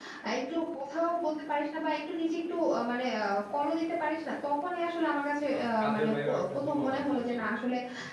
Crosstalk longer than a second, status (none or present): present